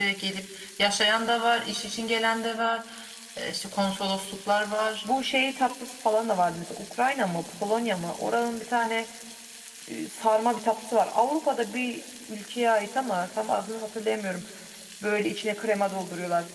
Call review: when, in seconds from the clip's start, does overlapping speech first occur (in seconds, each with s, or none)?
none